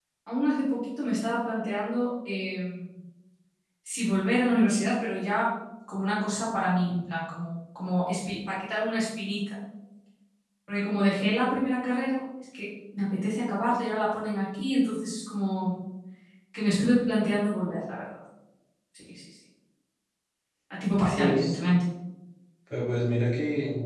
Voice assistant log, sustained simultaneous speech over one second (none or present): none